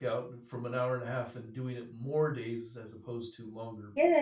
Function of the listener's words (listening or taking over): taking over